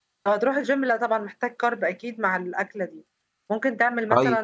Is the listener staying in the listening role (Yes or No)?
Yes